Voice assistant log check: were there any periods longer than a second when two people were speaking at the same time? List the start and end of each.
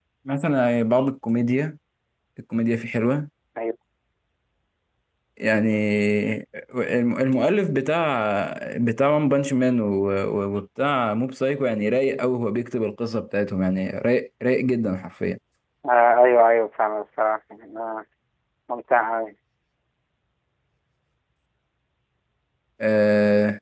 none

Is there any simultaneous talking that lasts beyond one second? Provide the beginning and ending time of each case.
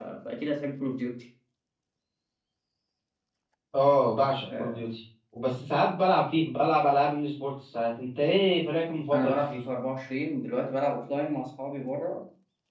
none

